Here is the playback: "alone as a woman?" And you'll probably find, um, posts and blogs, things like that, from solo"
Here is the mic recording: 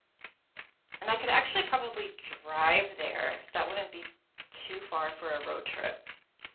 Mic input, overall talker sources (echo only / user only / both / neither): user only